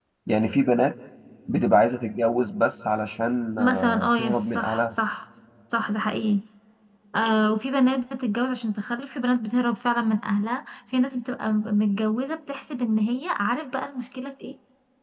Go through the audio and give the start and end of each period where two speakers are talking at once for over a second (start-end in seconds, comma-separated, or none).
3.6-4.8